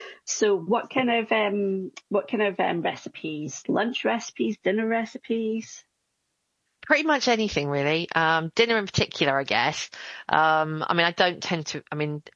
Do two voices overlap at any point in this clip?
No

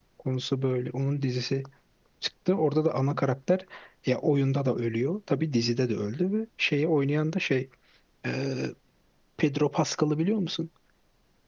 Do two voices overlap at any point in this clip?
No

